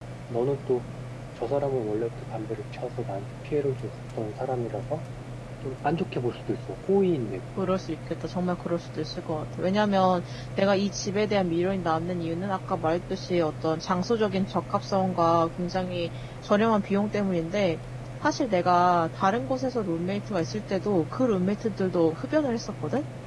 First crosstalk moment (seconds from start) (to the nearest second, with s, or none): none